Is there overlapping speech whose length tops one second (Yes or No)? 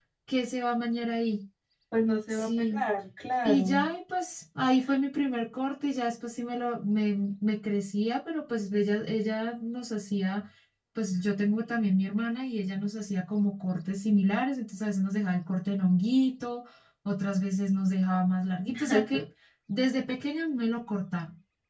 No